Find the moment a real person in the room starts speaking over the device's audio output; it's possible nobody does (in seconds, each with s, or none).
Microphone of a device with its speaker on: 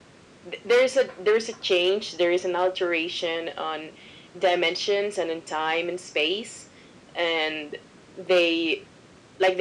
none